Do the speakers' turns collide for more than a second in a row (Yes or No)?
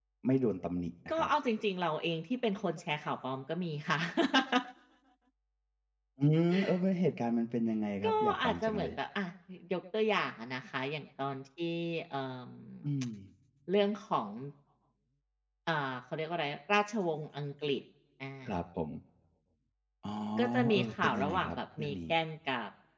Yes